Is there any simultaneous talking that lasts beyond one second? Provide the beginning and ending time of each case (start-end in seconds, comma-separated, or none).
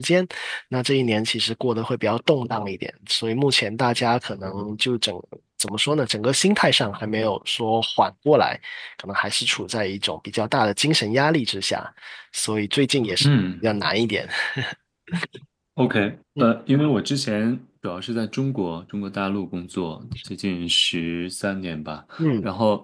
none